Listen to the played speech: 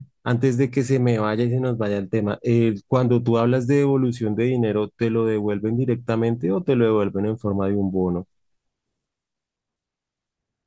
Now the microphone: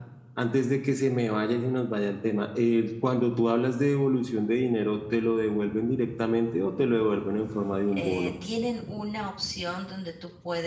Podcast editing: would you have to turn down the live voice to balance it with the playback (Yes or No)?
No